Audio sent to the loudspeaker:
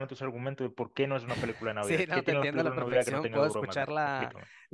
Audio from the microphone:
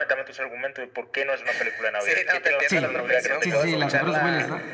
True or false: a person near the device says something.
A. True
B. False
A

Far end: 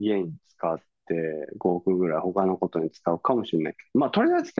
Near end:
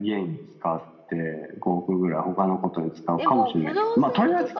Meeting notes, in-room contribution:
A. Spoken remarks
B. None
A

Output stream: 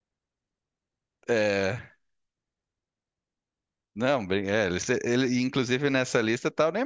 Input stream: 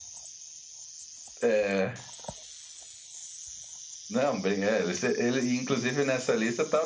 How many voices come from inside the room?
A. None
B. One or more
A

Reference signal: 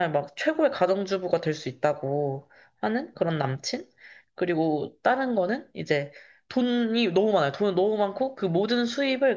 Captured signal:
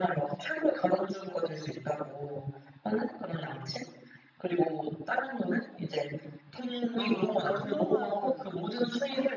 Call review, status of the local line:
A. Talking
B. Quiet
A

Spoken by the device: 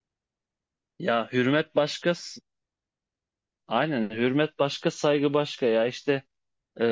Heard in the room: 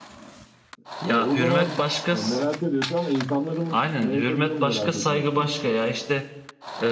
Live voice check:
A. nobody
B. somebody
B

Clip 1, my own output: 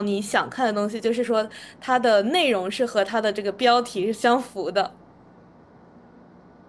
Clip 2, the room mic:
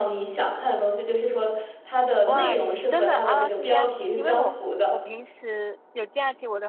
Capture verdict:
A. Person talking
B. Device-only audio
A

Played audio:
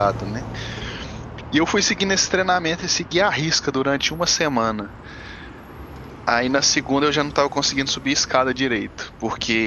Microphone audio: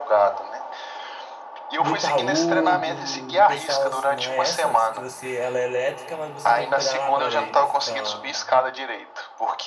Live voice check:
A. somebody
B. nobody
A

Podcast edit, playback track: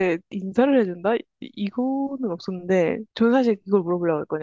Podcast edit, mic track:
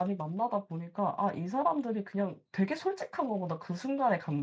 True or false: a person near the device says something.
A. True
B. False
A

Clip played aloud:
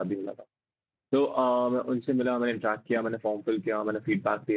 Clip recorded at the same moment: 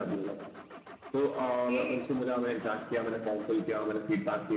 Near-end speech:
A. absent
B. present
B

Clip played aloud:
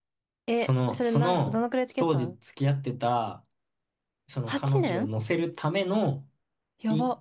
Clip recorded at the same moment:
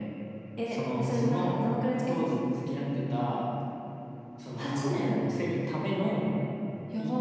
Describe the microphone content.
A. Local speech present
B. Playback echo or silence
B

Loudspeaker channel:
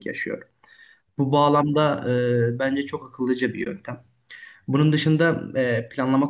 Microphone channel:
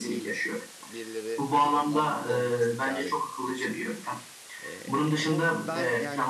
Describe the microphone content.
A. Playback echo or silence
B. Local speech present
B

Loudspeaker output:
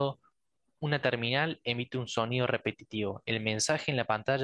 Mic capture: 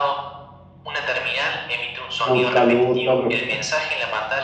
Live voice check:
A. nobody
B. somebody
B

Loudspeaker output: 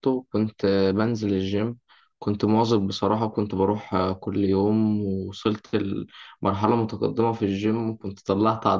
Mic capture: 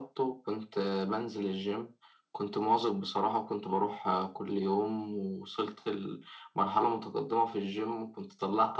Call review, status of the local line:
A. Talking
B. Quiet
B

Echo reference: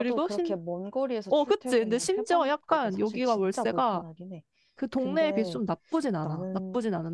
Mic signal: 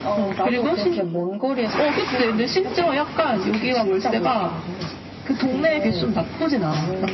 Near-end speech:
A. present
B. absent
B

